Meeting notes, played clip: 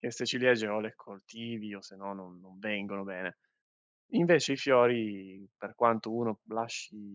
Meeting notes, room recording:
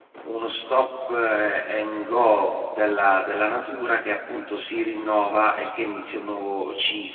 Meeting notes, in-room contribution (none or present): present